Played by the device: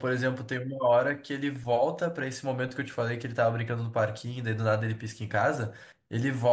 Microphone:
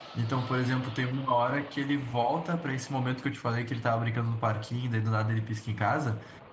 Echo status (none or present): present